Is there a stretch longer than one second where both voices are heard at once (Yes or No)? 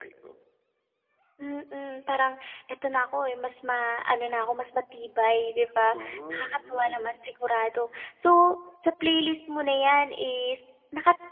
Yes